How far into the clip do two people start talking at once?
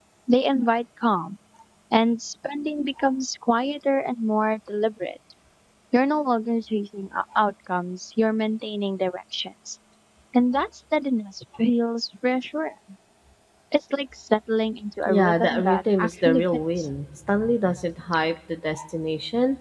15.1 s

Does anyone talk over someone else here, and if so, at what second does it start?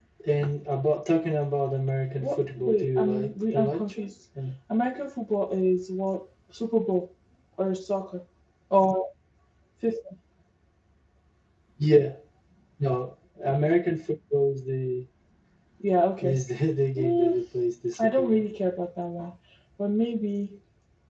2.2 s

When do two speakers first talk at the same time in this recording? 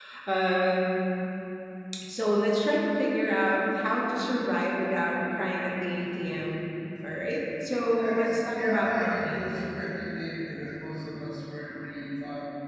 8.0 s

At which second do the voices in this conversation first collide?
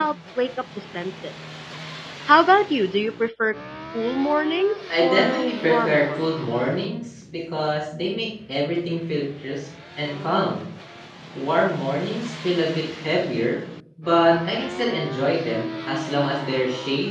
4.9 s

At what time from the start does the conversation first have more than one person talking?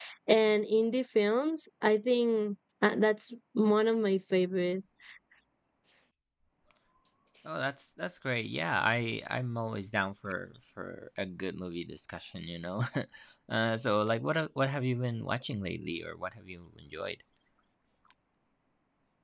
none

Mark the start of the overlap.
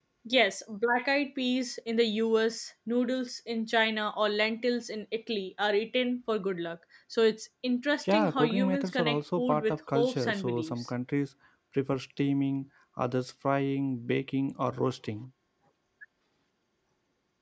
8.0 s

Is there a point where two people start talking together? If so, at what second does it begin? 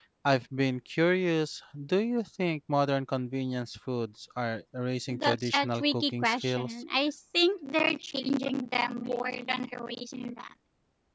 5.1 s

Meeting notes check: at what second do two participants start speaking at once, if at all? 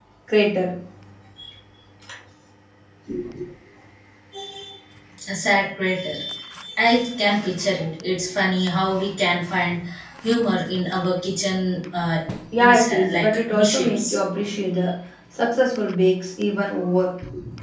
12.6 s

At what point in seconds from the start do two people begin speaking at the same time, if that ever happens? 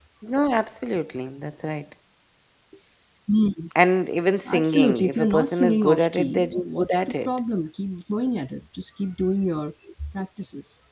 4.5 s

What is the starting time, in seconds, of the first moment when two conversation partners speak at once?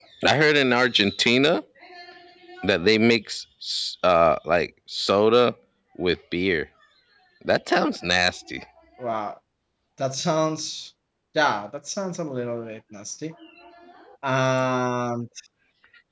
none

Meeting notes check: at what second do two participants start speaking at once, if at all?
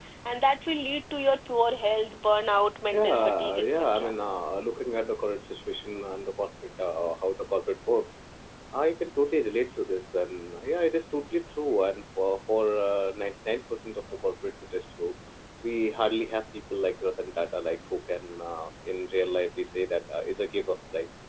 2.9 s

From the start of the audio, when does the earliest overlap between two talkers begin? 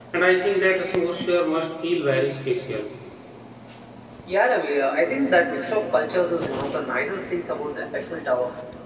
none

